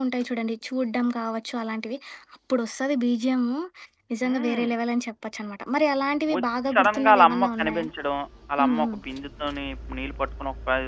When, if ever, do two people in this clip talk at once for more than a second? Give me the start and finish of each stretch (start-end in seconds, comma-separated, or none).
6.3-7.9